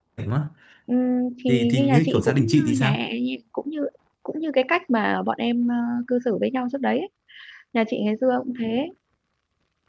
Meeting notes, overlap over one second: present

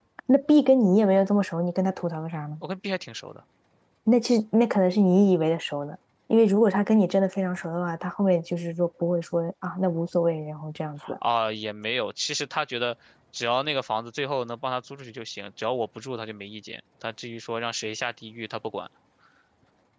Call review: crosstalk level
none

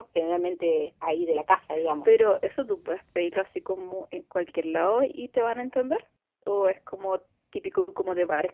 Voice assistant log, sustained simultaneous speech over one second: none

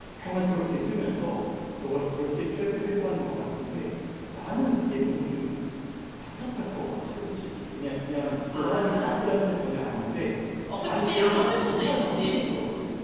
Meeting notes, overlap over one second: present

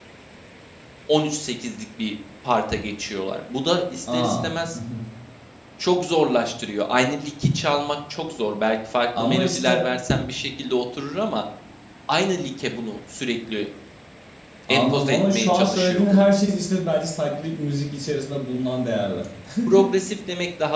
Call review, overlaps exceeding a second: present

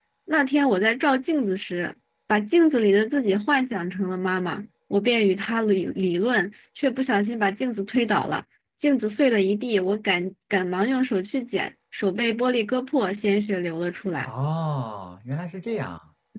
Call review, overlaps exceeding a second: none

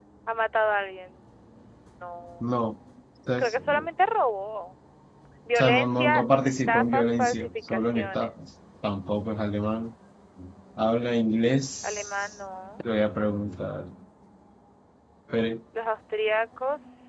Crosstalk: present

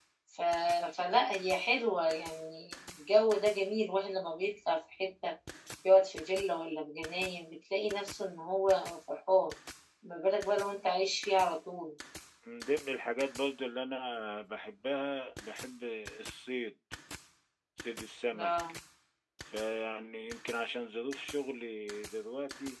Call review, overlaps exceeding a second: none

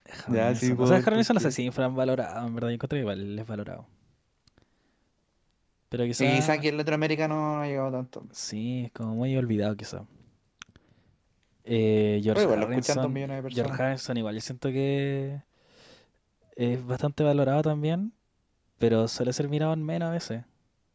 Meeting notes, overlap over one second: present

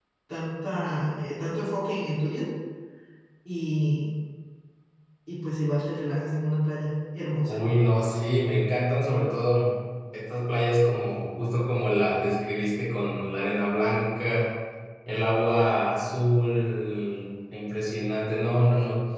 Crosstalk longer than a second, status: none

